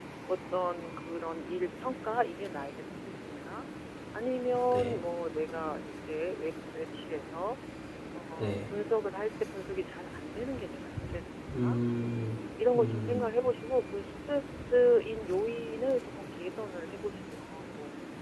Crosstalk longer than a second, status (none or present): none